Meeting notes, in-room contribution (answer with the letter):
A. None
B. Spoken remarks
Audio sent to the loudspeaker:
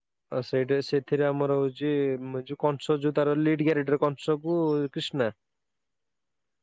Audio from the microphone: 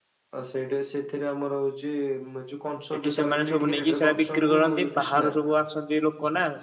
B